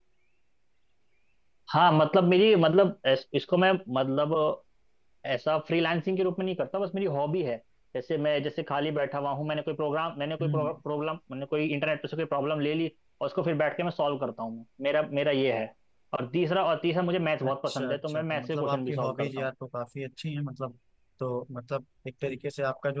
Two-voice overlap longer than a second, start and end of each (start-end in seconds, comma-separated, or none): 17.4-19.5